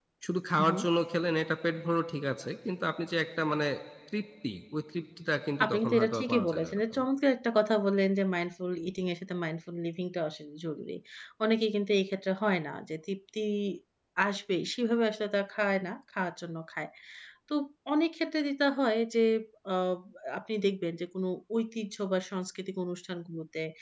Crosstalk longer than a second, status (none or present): present